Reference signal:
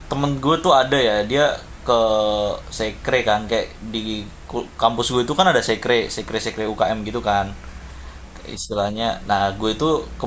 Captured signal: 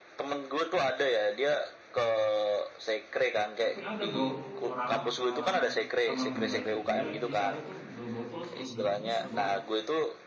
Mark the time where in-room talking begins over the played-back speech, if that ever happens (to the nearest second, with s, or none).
4 s